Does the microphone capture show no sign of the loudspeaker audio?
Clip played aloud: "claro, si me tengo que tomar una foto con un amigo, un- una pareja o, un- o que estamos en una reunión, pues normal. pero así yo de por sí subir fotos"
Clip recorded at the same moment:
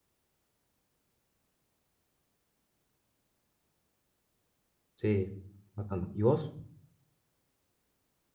Yes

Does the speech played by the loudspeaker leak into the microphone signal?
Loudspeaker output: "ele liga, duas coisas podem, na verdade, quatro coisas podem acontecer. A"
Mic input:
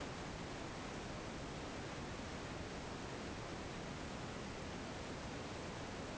No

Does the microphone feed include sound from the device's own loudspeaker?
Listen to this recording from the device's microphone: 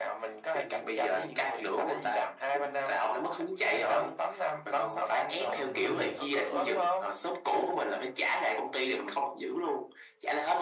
Yes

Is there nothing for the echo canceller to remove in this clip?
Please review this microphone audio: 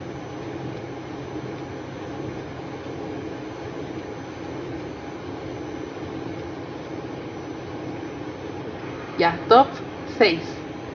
Yes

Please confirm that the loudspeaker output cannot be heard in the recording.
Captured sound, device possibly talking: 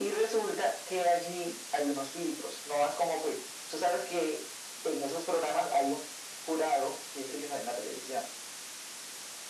No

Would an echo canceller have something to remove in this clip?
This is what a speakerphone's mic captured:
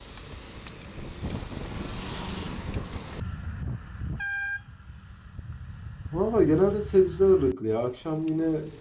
No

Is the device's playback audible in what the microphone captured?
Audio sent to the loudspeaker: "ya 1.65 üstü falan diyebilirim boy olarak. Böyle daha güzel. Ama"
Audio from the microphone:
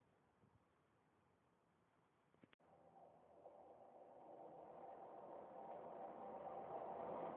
No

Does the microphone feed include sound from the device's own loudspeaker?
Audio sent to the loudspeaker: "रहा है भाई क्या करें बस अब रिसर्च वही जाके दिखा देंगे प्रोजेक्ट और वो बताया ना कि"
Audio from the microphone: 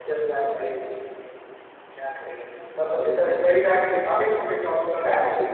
Yes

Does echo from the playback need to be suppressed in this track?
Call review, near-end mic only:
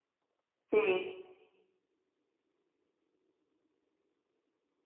No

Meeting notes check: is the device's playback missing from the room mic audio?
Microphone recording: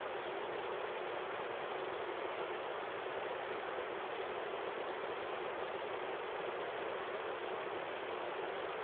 Yes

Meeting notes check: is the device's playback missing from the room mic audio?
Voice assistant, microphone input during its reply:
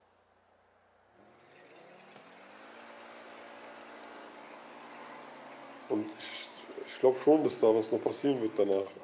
Yes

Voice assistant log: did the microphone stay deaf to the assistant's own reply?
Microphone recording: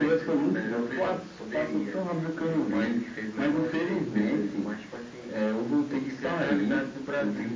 No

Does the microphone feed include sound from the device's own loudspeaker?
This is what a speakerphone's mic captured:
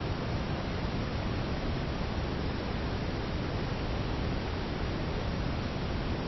No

